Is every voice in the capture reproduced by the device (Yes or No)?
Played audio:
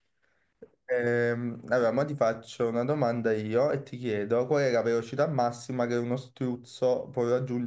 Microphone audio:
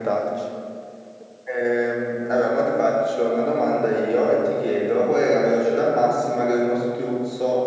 Yes